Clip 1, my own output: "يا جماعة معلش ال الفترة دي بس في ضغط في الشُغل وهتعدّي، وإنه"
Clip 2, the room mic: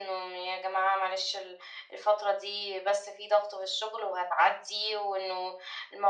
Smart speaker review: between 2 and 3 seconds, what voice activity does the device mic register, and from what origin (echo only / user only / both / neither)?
echo only